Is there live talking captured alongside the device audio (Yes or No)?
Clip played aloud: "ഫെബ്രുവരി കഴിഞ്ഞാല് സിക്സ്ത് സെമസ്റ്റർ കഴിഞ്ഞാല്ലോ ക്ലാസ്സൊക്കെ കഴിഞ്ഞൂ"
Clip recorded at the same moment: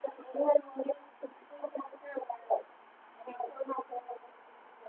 No